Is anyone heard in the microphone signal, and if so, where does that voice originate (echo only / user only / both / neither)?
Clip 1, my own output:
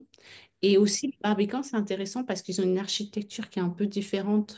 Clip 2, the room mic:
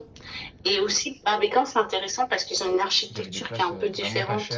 both